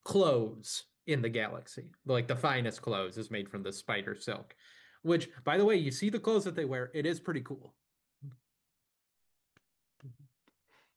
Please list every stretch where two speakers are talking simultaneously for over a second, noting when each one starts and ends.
none

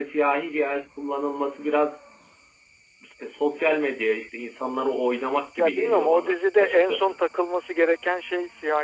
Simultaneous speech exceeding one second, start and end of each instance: 5.6-7.2

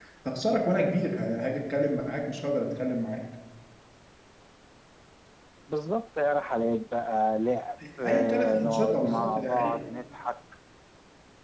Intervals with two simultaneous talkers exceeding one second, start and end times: 8.1-9.8

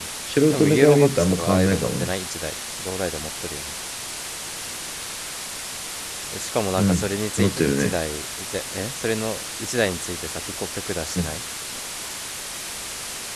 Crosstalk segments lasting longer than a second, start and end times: 0.5-2.1, 6.8-8.0

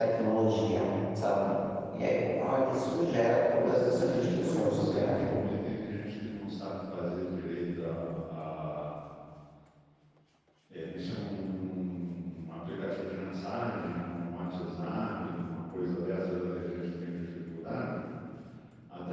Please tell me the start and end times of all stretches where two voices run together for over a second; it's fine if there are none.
3.6-5.3

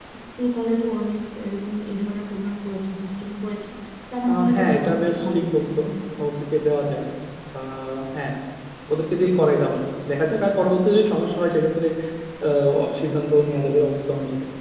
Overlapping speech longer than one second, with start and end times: 4.3-5.8

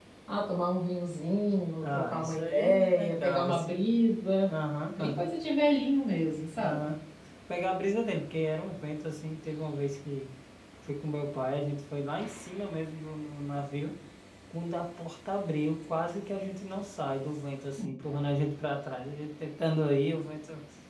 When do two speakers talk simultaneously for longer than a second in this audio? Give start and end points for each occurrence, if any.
1.8-3.8

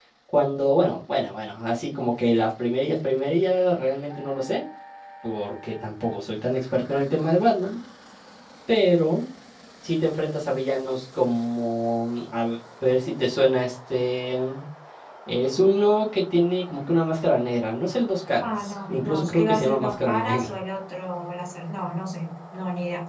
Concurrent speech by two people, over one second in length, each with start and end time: 18.4-20.6

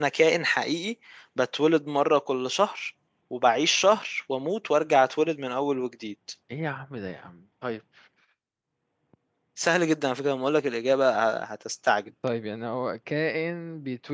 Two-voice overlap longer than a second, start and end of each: none

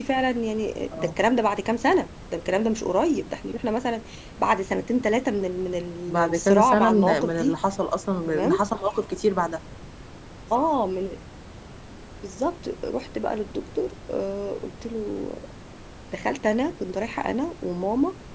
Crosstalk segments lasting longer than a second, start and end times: 6.1-7.6

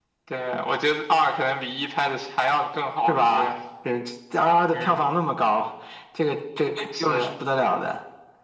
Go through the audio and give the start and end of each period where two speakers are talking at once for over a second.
none

